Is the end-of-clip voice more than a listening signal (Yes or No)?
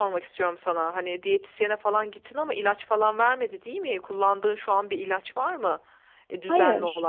Yes